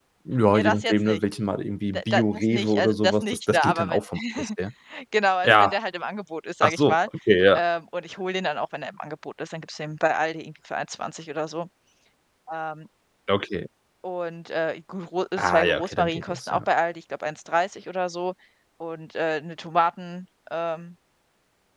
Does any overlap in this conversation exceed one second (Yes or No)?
Yes